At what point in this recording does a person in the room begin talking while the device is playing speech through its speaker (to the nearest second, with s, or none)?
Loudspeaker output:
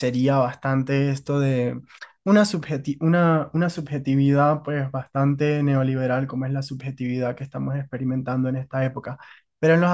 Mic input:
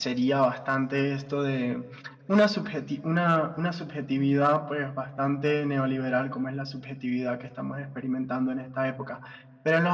none